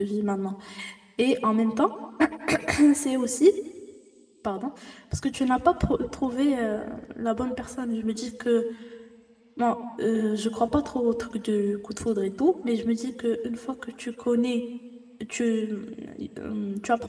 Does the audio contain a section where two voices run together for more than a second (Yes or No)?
No